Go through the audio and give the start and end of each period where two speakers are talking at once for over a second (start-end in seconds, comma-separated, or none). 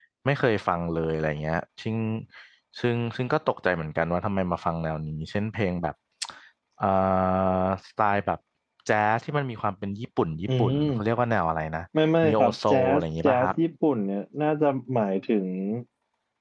12.2-13.5